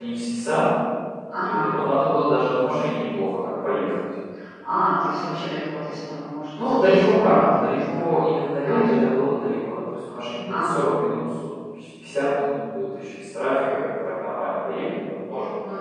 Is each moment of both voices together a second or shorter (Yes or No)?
No